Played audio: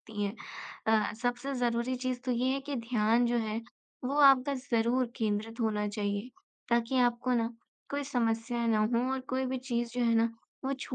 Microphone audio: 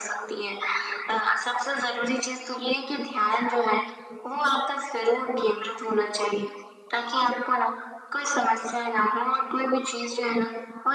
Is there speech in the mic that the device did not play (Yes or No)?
No